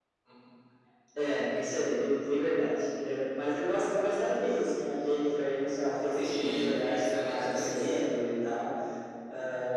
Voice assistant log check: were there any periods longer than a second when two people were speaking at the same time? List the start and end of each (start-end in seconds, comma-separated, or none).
6.1-7.8